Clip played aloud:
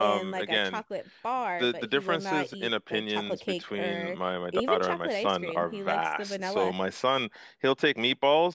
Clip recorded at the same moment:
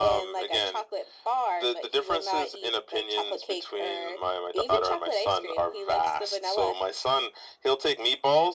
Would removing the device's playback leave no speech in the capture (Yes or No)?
Yes